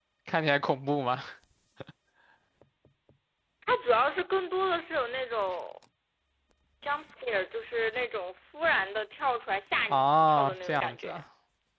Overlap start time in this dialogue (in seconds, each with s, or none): 9.9 s